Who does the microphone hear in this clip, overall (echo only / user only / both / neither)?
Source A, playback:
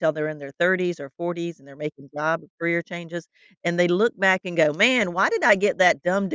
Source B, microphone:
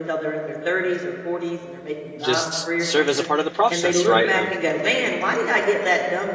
both